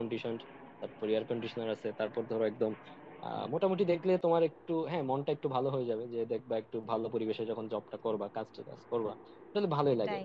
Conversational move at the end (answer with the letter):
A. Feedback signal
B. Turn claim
A